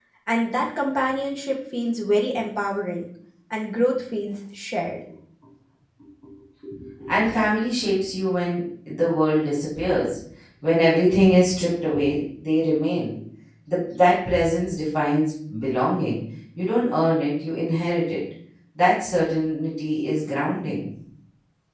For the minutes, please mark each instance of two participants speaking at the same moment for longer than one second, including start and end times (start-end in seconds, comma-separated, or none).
none